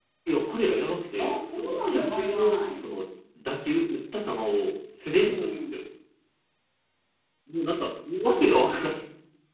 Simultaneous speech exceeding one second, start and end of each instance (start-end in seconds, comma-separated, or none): 1.2-2.9